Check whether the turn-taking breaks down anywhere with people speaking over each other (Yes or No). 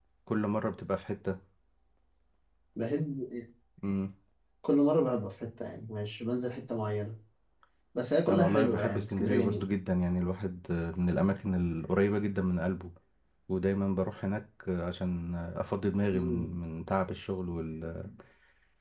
Yes